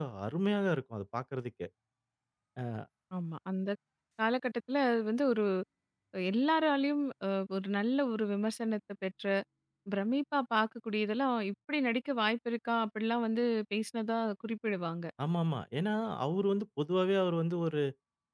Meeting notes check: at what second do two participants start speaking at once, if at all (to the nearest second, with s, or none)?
none